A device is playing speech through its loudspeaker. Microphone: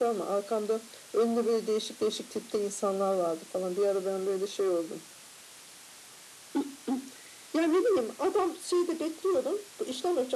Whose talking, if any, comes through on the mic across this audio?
echo only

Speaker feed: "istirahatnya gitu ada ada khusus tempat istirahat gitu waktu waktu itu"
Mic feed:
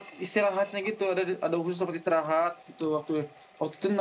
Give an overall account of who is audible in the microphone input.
echo only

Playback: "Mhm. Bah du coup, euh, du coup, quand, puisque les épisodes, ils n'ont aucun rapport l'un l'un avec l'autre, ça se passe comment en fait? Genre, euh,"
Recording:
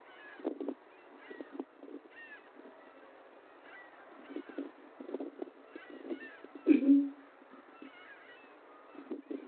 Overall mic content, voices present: user only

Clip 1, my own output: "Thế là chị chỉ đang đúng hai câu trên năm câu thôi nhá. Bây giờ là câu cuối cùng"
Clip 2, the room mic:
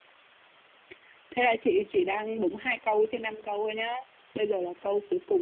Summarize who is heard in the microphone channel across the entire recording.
echo only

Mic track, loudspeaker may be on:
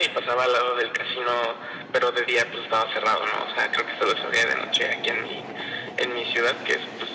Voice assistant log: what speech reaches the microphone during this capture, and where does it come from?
echo only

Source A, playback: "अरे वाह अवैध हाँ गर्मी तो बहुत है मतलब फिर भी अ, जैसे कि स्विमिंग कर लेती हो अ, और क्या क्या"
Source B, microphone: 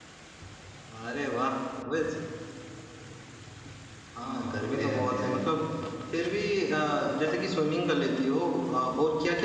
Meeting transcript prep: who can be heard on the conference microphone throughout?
both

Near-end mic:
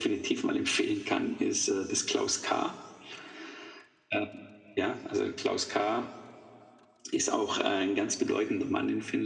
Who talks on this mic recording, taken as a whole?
echo only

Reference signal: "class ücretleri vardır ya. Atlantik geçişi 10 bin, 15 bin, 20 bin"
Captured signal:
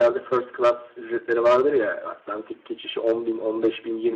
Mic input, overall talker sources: echo only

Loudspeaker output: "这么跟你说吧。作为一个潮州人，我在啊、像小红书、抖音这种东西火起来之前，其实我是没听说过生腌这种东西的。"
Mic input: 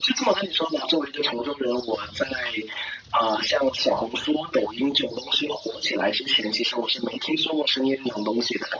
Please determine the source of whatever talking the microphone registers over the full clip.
echo only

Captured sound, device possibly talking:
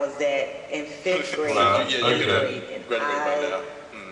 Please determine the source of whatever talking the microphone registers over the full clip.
both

